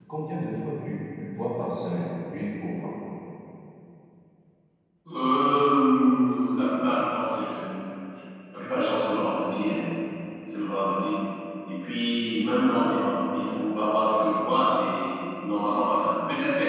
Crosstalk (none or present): none